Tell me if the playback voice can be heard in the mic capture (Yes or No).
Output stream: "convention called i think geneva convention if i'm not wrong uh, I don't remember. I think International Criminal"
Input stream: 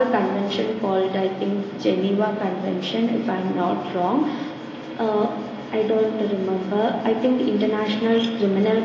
Yes